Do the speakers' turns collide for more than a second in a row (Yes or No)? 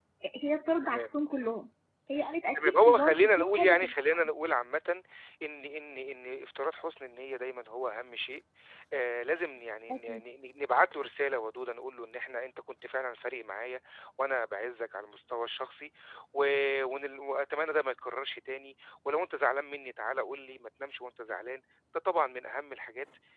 Yes